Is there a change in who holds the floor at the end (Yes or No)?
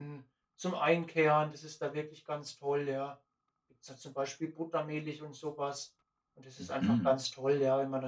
No